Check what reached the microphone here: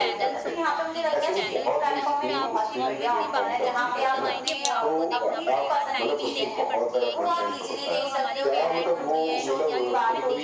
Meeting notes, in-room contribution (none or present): present